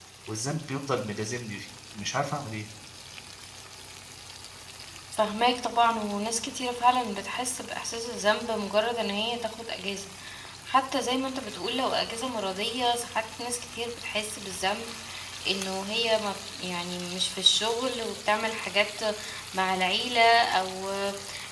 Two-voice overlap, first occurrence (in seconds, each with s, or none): none